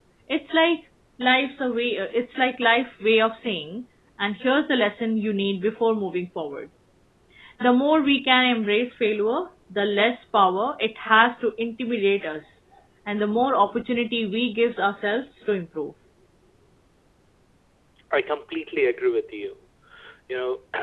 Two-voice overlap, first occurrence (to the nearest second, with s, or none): none